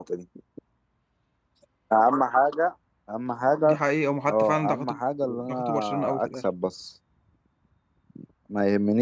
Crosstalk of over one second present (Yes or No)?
Yes